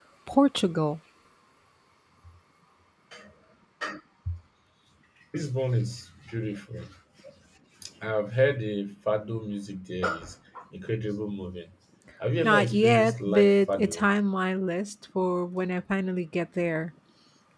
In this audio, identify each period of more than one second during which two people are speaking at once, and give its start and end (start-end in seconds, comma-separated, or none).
12.4-14.1